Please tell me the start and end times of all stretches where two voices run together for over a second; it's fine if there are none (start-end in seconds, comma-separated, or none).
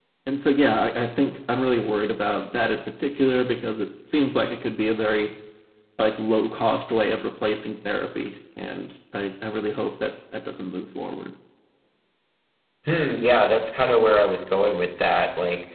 none